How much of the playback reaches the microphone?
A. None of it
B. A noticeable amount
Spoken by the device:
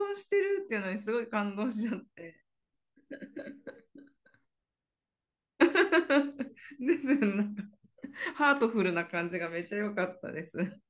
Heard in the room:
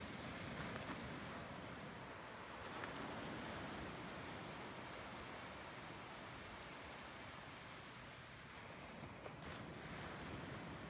A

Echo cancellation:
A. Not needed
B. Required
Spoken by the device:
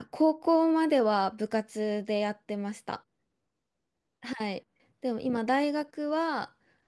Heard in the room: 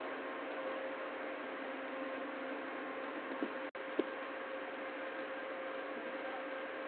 A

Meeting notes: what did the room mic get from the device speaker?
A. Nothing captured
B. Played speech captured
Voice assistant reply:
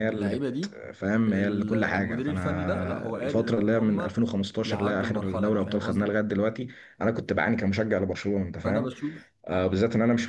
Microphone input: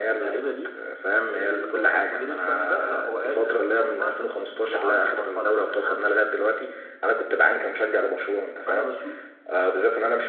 B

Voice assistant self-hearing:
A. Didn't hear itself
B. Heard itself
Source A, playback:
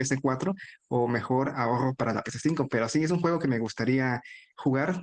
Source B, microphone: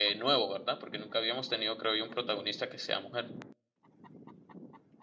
A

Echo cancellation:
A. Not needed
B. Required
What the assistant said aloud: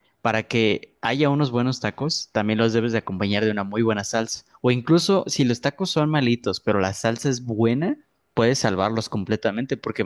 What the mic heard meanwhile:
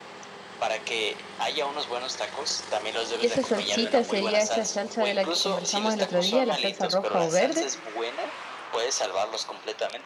B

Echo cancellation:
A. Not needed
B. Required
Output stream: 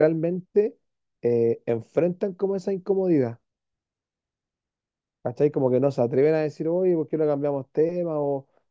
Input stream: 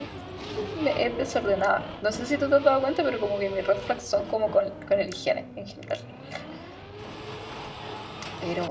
A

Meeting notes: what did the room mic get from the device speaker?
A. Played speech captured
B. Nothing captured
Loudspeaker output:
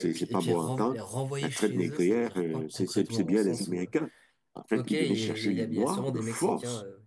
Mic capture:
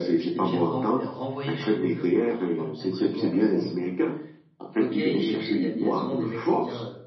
A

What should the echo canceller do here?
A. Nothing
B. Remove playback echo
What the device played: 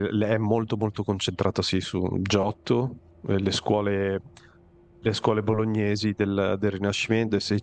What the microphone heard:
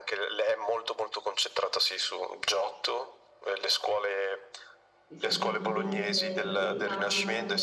B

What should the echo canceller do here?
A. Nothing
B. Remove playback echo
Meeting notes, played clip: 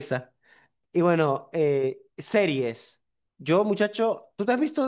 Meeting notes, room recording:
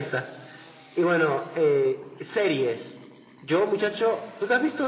B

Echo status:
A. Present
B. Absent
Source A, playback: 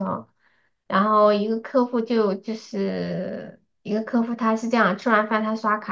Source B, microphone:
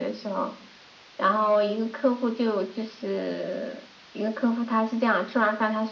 A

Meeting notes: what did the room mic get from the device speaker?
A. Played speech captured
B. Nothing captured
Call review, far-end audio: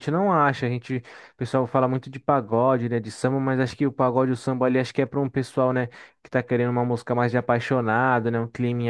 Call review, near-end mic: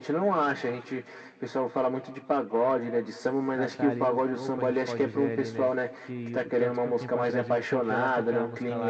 A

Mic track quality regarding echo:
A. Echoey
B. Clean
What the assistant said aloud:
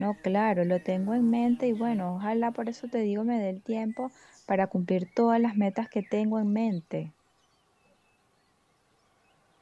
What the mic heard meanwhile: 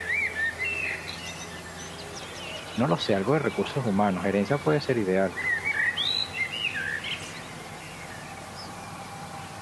B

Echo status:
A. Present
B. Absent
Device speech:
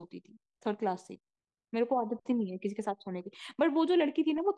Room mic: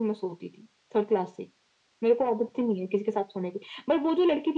A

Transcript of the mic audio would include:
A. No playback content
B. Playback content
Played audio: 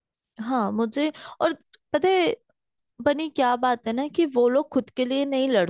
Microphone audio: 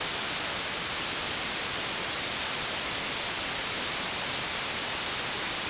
A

